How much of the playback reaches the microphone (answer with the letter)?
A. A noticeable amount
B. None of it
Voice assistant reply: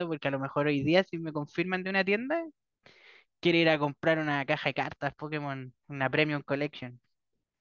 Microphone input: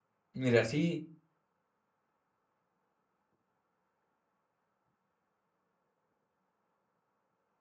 B